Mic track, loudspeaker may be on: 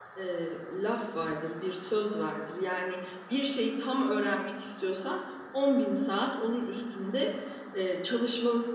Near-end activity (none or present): present